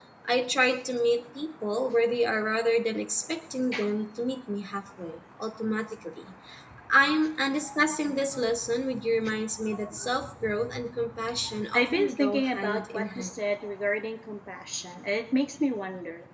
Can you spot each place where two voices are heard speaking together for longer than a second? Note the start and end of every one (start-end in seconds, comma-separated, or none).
11.7-13.3